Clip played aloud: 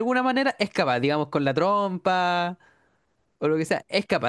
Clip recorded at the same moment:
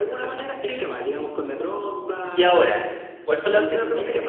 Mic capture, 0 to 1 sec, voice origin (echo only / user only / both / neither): both